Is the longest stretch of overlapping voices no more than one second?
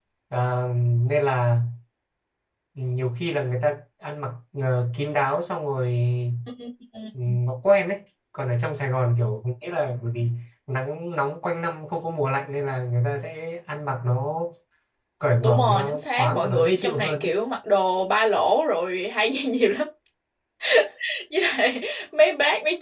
No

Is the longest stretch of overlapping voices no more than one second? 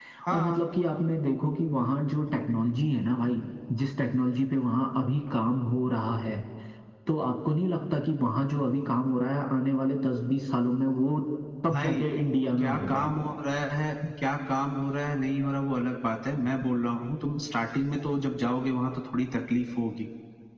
Yes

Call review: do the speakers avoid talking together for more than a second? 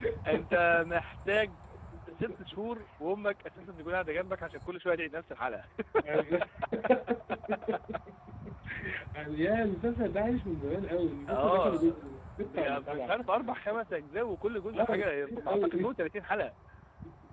No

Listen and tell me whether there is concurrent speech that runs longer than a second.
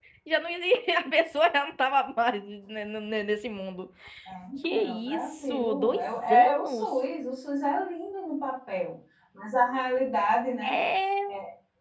Yes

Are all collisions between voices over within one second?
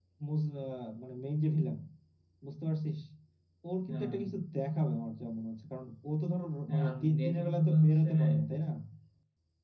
No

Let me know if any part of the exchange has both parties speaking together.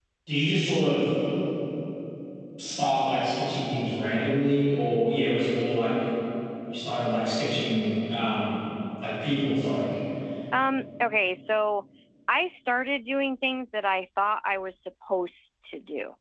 No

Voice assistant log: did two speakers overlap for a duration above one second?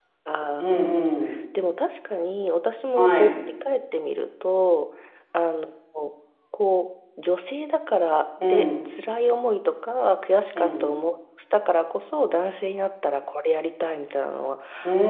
No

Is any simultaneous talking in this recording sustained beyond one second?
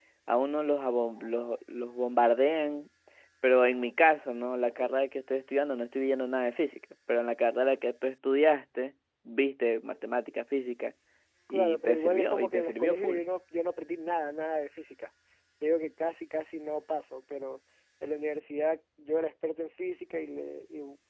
Yes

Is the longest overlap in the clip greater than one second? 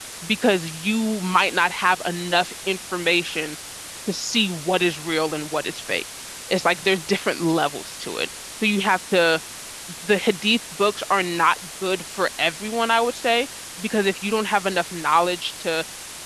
No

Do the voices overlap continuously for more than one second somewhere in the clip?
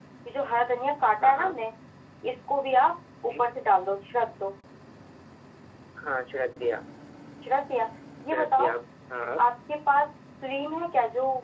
No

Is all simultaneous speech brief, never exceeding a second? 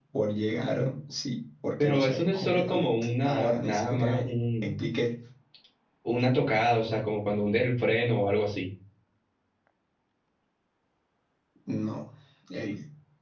No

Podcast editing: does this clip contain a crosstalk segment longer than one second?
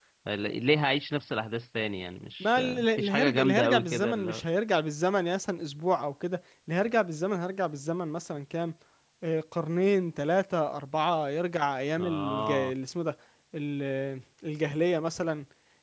Yes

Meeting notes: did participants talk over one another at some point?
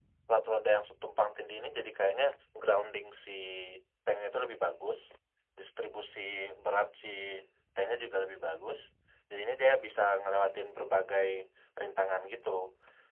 No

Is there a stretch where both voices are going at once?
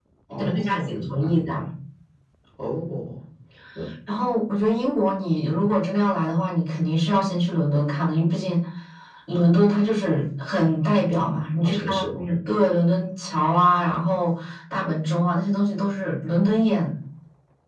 Yes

